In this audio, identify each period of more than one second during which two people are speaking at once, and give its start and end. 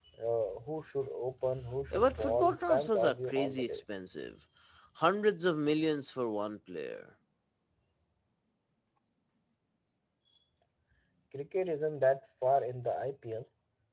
1.9-3.8

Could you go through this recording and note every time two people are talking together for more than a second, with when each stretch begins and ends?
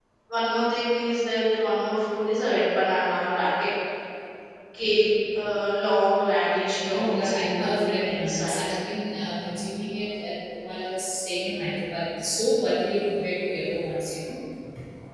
6.9-8.6

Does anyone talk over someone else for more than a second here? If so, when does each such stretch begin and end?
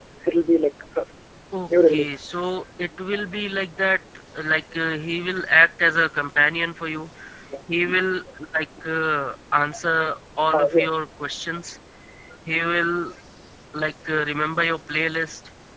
1.7-2.9

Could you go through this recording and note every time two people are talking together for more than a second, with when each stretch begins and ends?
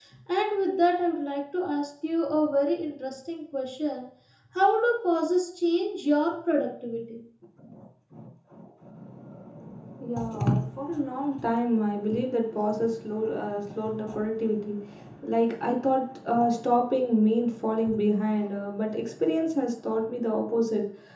none

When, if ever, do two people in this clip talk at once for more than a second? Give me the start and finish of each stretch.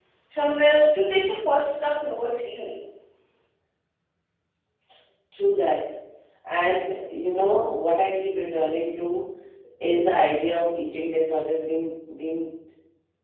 none

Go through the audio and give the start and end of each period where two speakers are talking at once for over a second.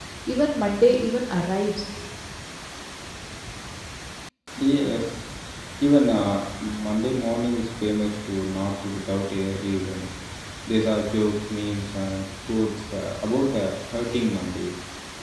none

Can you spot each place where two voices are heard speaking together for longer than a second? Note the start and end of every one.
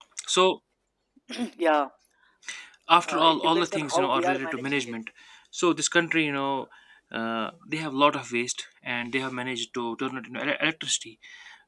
3.1-4.9

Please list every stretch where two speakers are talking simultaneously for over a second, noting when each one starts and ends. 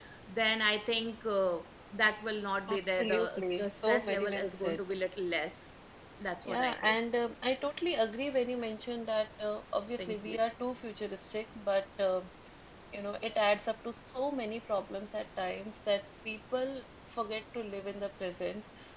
2.7-4.8

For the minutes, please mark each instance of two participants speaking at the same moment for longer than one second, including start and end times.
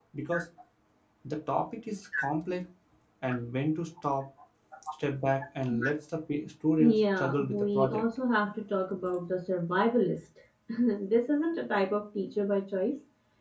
6.8-8.0

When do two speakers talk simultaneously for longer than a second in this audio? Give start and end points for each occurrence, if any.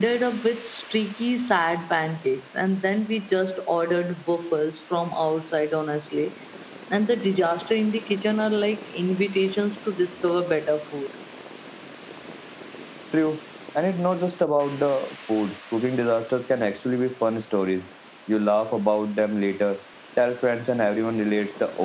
none

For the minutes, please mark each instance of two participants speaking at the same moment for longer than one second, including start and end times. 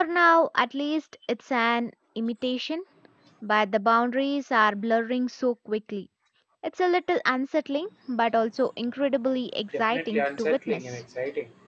9.8-11.0

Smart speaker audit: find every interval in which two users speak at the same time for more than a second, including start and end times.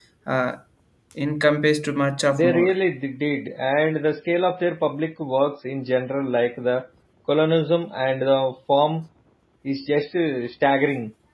none

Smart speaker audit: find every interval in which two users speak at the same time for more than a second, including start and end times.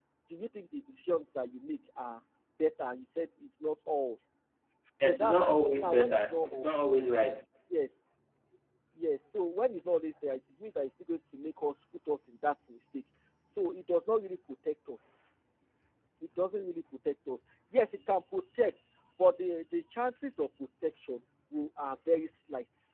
5.0-6.7

